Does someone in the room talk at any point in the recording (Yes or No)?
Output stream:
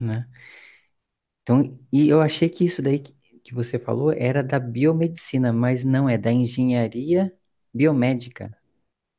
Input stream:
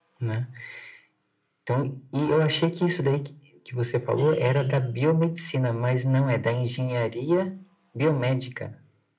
Yes